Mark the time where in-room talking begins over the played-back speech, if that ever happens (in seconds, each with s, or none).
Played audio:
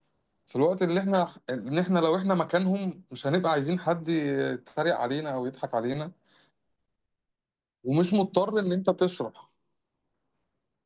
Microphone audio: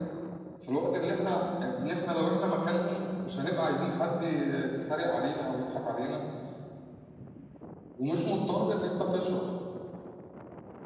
none